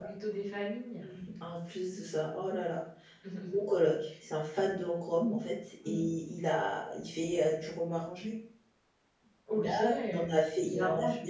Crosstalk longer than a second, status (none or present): present